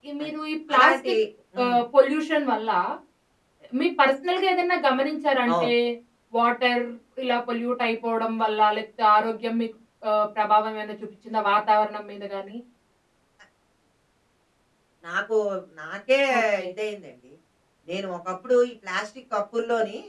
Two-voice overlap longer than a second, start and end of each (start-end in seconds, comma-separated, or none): none